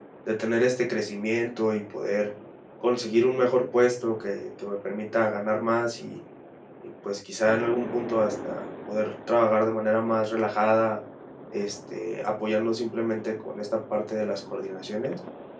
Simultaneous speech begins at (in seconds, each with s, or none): none